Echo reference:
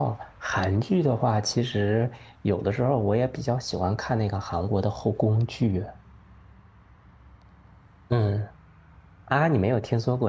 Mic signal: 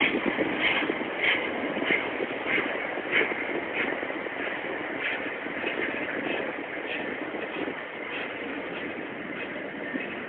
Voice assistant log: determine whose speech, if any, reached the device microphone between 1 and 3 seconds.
neither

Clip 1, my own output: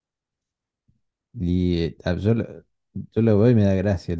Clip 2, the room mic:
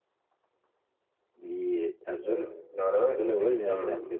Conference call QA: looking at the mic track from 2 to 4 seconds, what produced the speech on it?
both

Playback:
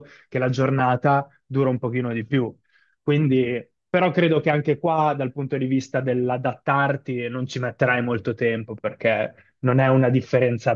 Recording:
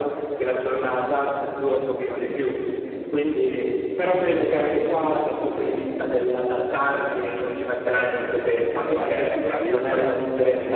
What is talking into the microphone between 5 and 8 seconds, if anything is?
echo only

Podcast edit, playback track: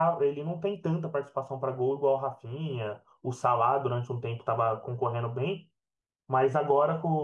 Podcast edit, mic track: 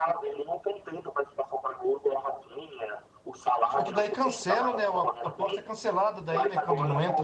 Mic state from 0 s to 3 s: echo only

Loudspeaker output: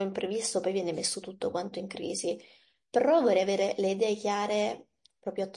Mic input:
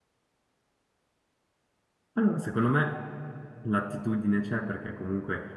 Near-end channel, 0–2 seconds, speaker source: neither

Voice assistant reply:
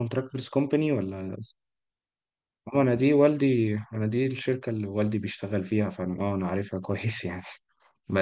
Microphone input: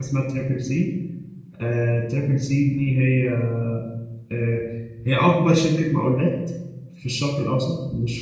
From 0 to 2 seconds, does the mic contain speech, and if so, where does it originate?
user only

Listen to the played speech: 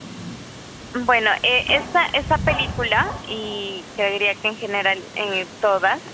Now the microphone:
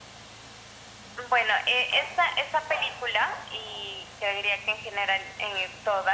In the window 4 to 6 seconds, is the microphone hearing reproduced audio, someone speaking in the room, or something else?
echo only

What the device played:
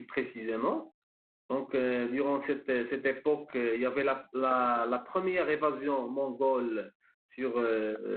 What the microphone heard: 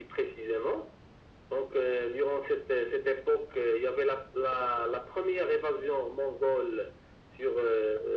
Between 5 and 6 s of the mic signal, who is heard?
echo only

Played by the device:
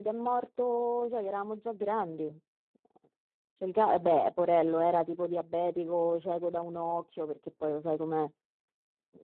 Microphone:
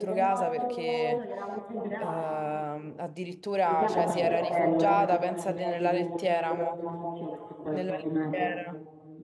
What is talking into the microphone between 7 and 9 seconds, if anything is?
both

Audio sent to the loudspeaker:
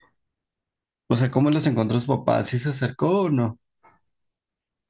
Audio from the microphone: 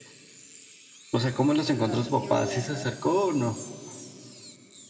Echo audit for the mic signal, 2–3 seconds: both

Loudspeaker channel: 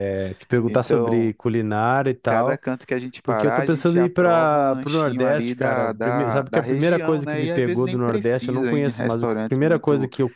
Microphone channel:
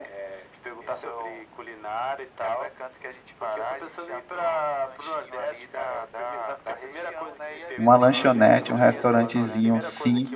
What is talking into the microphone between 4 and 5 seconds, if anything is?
echo only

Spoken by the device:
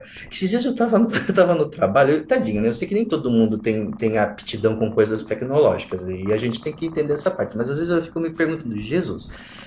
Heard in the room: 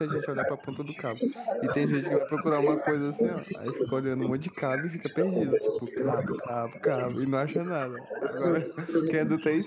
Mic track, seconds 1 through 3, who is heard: both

